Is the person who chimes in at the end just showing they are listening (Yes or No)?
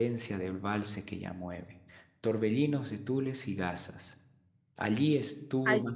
Yes